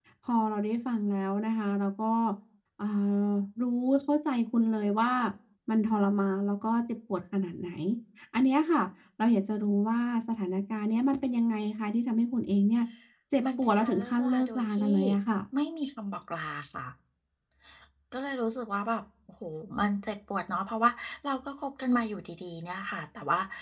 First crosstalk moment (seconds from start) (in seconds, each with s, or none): 13.6 s